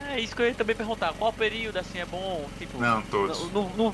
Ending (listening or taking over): listening